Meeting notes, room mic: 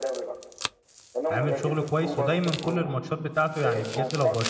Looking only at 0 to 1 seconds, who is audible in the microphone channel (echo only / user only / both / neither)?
echo only